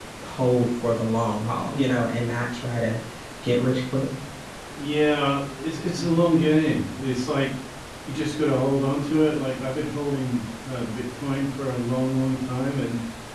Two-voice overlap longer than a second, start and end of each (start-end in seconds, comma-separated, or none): none